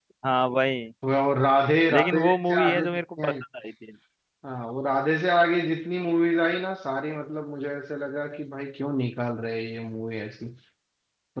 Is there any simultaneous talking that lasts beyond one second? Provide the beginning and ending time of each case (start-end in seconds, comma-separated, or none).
1.9-3.3